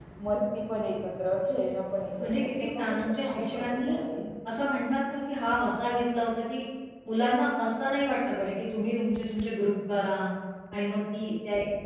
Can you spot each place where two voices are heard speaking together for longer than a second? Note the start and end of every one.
2.3-4.0

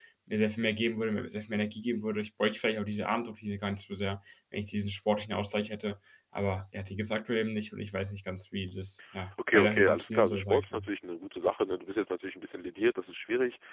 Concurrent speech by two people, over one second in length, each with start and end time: 9.5-10.9

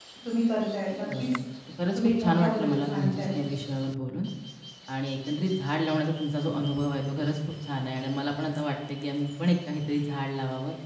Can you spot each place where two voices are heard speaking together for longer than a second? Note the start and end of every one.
2.0-3.2

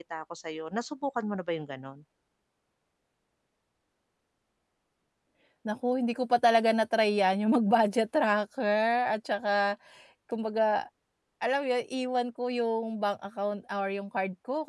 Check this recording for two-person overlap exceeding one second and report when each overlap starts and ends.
none

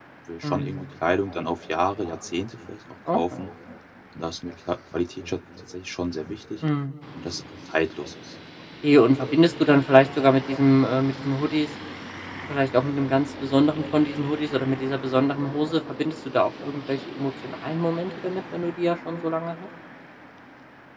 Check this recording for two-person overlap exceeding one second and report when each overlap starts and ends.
none

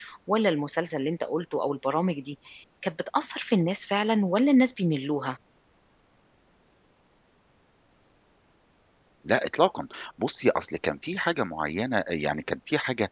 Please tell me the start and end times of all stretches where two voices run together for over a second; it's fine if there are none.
none

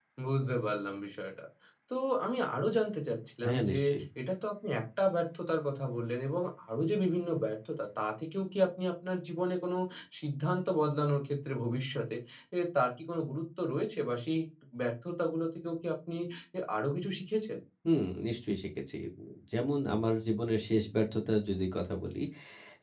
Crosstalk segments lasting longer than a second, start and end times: none

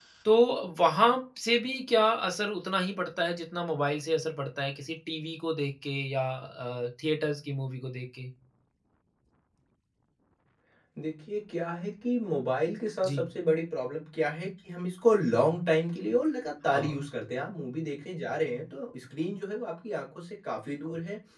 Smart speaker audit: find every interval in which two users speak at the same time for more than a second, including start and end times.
none

